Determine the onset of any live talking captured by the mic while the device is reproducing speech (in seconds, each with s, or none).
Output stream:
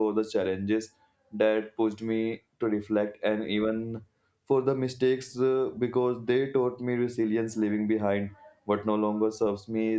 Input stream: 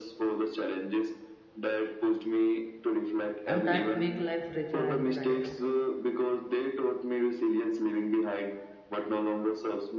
3.5 s